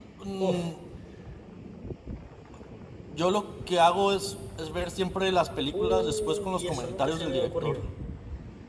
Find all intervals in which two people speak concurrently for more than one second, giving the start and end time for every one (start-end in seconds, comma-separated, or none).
5.8-7.8